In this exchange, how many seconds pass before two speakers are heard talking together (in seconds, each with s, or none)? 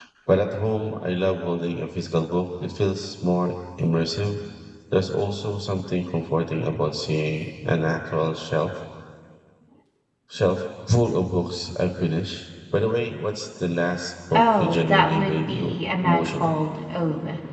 14.3 s